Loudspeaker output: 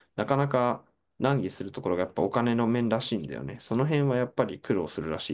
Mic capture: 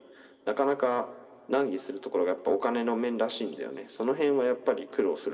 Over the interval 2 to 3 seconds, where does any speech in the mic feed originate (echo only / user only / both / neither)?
echo only